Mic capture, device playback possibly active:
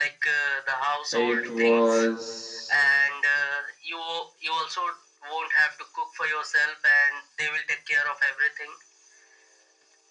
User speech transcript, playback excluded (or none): It was.